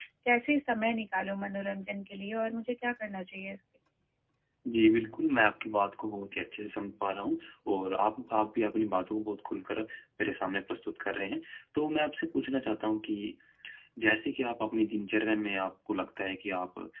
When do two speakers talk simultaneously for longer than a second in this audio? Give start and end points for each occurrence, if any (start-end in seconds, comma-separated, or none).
none